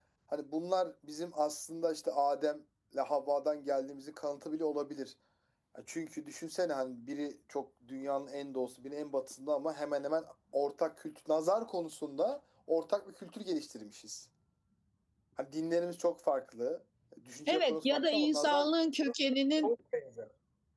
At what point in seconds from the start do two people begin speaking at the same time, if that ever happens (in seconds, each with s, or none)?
17.5 s